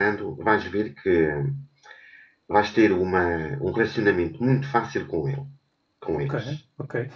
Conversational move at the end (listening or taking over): taking over